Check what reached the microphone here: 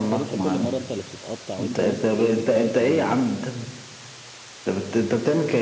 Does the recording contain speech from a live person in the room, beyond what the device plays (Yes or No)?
Yes